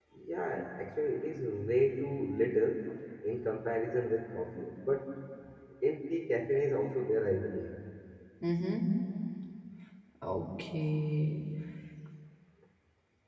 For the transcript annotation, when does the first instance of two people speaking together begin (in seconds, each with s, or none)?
none